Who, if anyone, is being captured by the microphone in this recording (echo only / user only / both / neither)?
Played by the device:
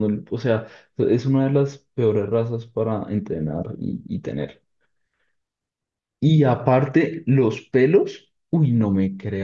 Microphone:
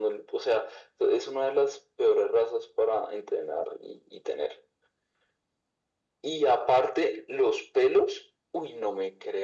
echo only